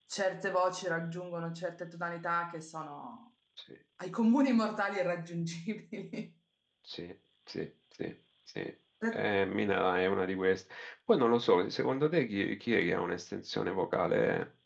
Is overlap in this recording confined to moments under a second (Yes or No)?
Yes